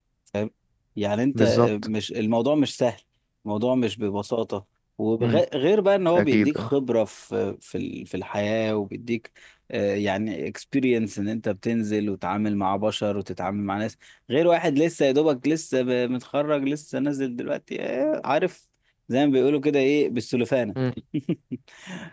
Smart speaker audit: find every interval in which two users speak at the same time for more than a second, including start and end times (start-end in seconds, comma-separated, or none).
none